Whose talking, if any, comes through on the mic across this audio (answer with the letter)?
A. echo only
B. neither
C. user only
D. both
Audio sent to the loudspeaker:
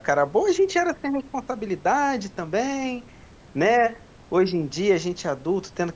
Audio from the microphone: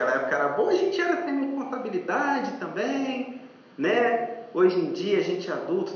A